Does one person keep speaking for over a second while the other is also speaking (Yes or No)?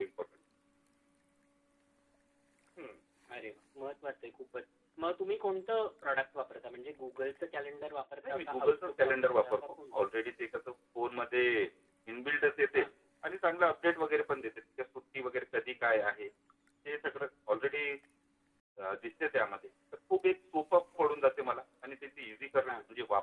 Yes